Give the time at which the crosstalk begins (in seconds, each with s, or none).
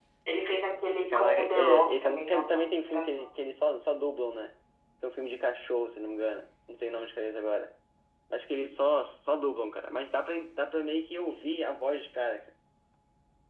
1.1 s